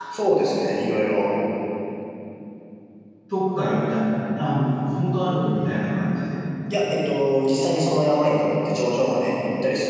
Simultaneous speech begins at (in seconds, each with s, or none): none